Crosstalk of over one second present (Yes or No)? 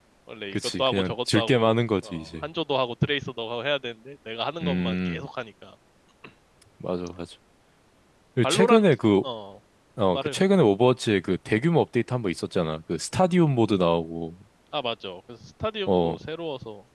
Yes